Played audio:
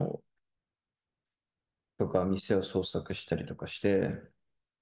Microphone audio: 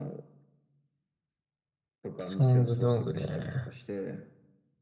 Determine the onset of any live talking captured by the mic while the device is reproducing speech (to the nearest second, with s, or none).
2 s